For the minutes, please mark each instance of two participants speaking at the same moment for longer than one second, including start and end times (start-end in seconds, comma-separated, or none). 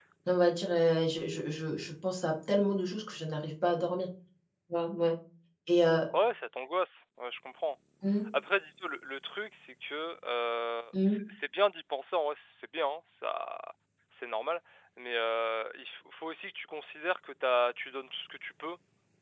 none